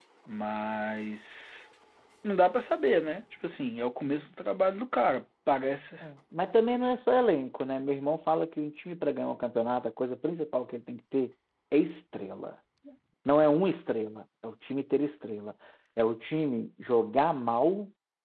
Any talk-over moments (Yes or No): No